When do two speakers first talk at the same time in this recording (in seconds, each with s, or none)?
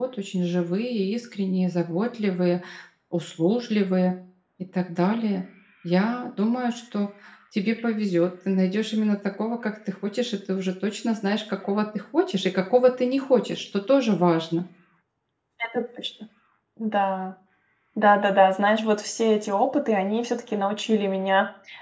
none